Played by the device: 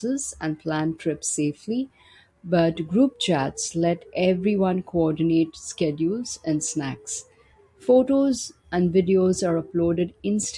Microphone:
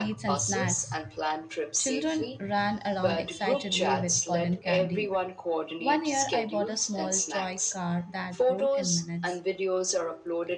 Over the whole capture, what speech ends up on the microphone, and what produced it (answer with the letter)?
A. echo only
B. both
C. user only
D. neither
B